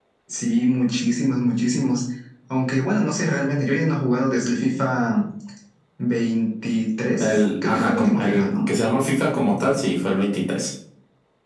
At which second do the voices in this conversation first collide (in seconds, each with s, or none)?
7.2 s